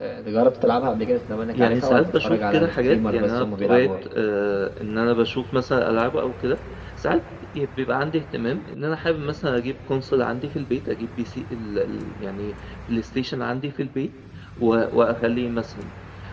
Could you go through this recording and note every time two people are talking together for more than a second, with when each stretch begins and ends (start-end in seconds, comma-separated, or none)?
1.5-3.9